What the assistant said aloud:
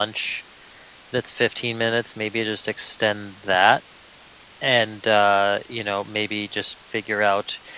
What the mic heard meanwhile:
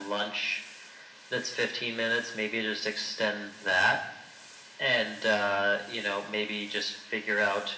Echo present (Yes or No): Yes